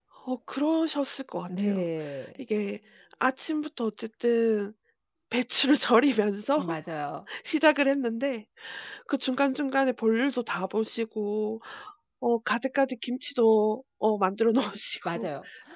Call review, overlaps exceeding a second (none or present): none